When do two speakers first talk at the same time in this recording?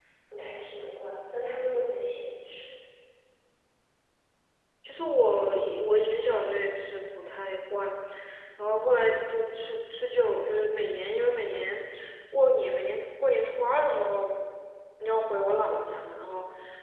none

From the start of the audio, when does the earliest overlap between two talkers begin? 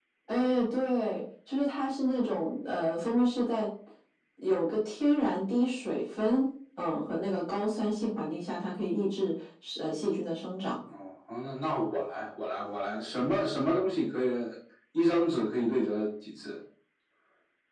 none

